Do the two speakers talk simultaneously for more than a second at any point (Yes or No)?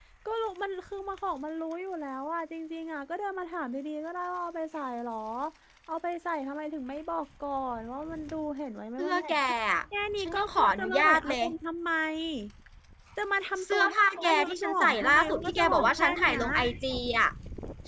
Yes